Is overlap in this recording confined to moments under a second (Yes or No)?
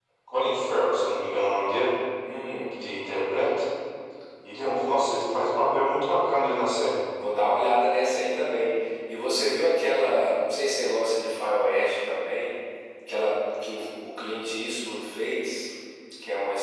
Yes